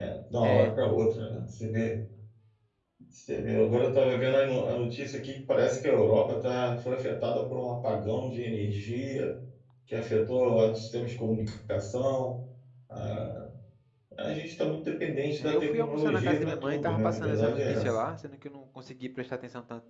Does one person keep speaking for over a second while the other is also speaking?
Yes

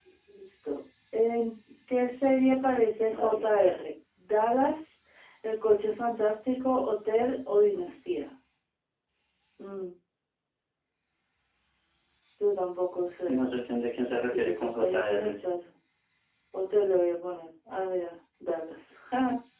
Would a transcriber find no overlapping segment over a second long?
No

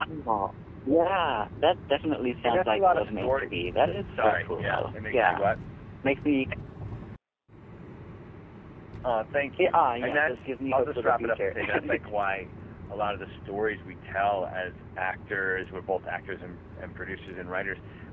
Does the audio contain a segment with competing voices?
Yes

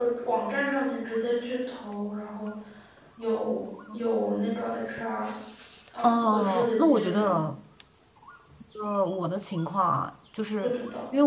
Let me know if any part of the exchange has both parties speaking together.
Yes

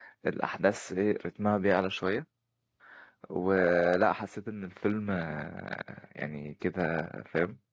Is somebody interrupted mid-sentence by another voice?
No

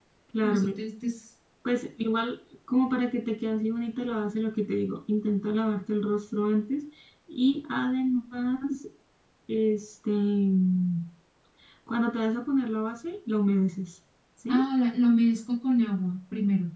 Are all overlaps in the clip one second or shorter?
Yes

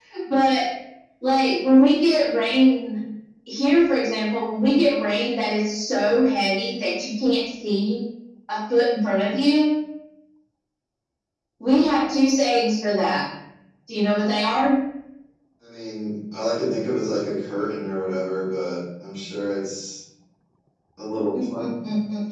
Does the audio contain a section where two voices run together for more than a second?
No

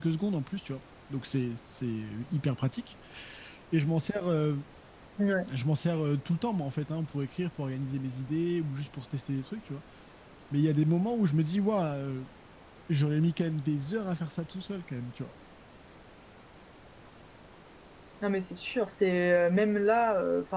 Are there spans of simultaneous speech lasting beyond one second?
No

